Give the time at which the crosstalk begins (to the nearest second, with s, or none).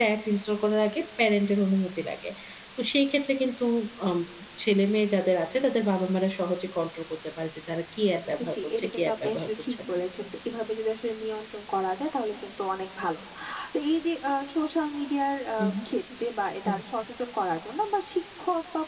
9 s